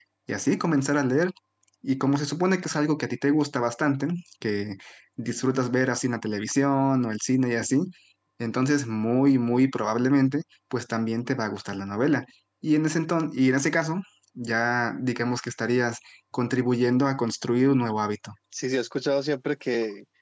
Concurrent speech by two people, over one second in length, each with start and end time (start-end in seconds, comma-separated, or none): none